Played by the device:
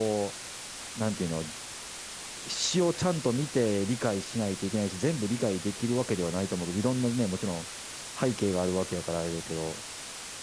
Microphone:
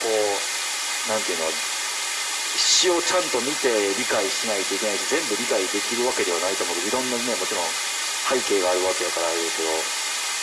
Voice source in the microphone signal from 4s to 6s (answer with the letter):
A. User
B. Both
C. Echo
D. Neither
C